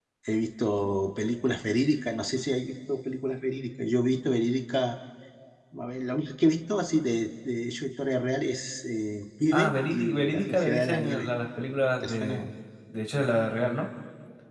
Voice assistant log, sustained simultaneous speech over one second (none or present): present